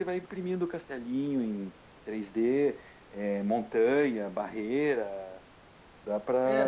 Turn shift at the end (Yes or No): Yes